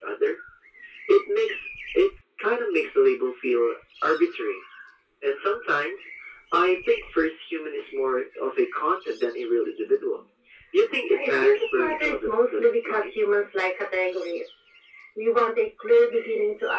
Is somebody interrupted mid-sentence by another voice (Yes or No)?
Yes